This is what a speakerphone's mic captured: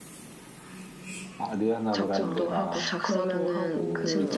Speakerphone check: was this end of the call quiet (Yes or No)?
No